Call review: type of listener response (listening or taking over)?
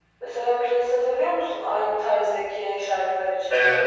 taking over